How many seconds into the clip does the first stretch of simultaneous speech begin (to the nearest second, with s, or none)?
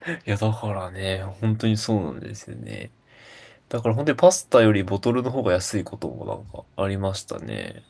none